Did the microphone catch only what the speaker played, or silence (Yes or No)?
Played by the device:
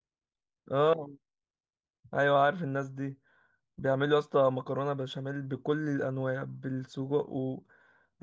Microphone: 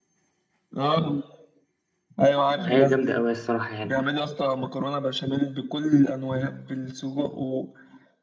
No